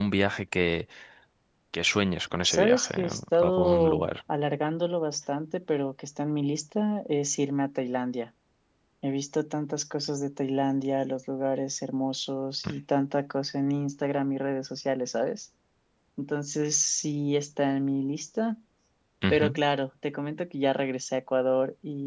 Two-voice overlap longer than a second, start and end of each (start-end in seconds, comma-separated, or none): 2.4-4.1